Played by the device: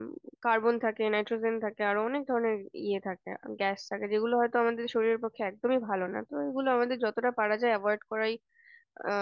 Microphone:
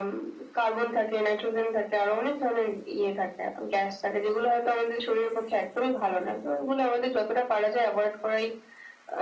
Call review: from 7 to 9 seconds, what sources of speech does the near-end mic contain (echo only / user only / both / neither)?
echo only